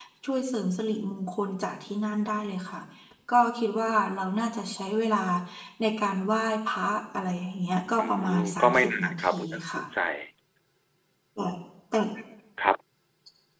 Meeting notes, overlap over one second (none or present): present